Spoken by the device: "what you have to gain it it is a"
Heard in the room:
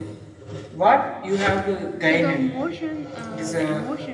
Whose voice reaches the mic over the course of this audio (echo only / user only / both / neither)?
both